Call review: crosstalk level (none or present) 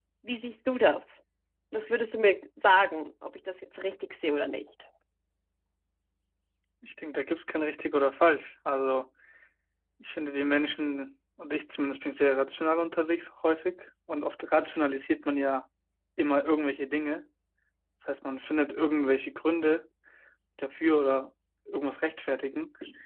none